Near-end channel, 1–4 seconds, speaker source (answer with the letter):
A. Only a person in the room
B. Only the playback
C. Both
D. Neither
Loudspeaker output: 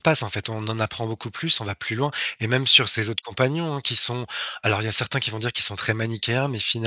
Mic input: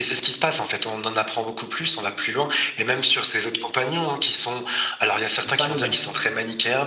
B